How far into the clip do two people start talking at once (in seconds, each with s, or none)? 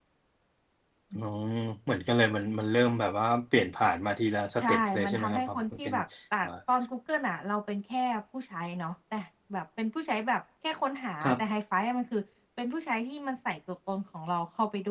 4.6 s